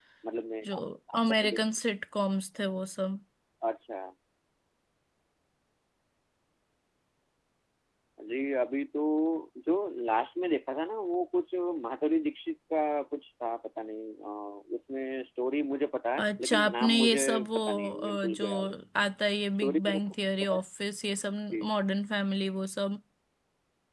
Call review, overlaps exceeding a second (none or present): present